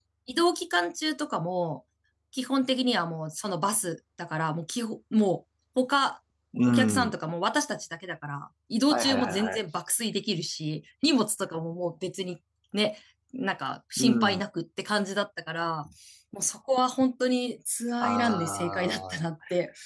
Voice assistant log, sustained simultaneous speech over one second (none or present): present